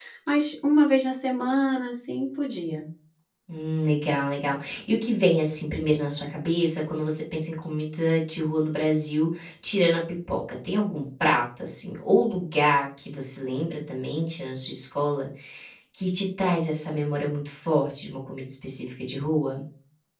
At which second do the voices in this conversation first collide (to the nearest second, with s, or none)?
none